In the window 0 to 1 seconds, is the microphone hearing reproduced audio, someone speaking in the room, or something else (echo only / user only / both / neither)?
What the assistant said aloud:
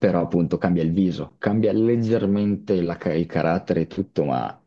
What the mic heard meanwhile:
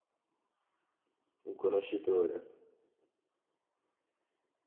neither